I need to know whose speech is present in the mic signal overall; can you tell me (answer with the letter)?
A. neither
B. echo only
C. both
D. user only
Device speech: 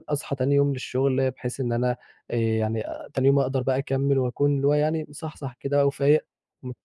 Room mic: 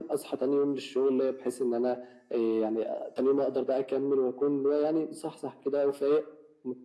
B